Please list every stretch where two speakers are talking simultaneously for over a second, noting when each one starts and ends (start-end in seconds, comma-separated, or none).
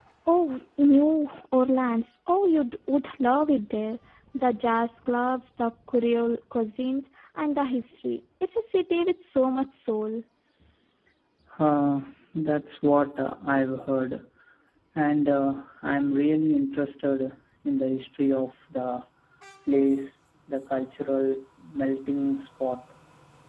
none